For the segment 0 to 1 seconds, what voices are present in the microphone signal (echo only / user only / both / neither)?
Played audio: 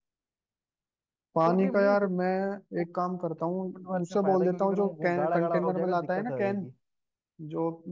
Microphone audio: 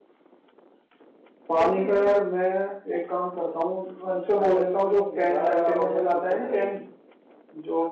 neither